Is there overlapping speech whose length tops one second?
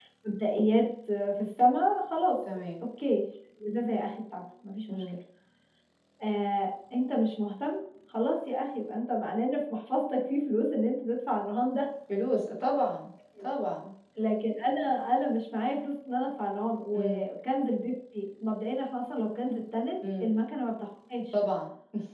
No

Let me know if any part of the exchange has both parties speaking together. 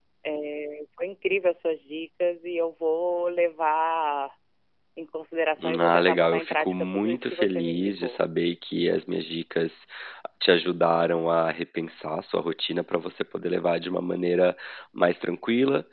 Yes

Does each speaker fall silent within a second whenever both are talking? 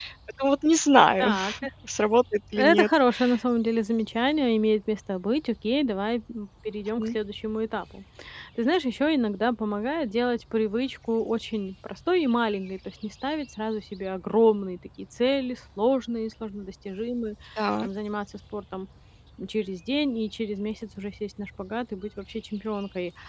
Yes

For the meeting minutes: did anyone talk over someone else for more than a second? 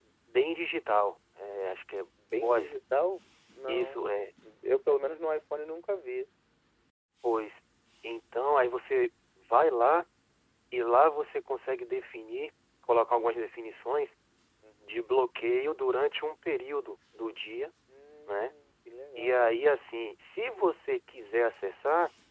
No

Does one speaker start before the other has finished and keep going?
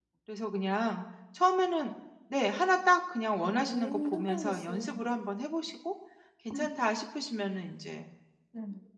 Yes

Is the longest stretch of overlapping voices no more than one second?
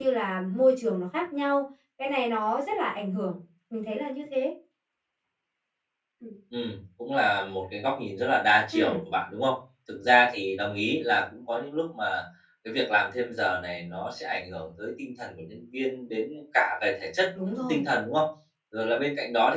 Yes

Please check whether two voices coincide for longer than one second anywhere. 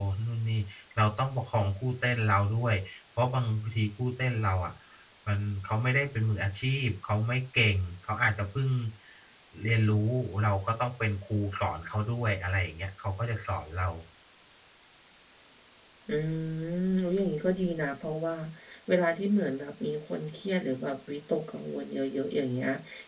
No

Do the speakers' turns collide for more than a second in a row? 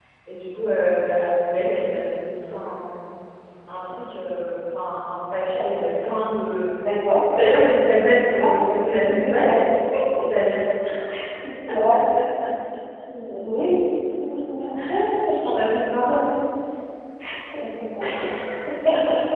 Yes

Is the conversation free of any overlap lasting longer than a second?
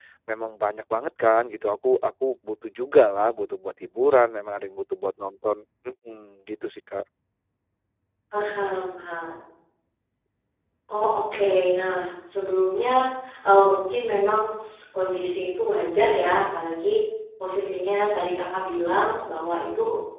Yes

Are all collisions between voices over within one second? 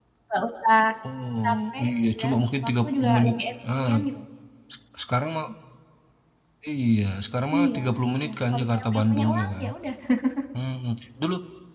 No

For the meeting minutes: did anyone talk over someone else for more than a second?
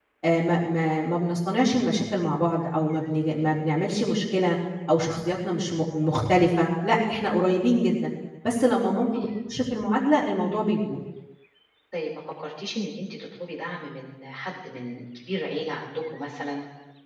No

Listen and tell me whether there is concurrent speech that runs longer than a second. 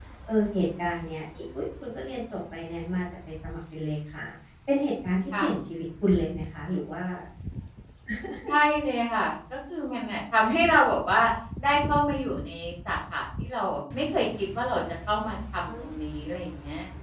No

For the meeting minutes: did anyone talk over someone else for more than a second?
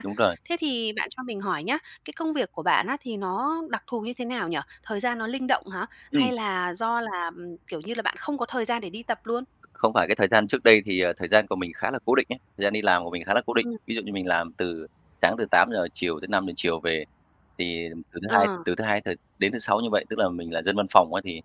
No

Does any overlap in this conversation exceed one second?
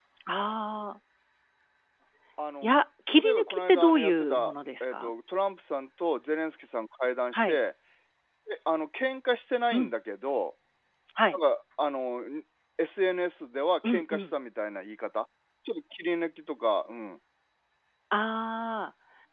Yes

